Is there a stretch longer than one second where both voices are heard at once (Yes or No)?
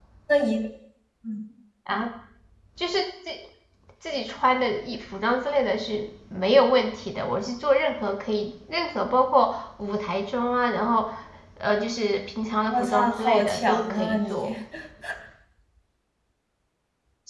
Yes